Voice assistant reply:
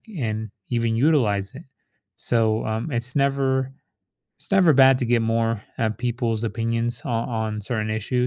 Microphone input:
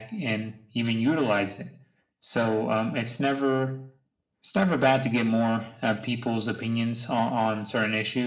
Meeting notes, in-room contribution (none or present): none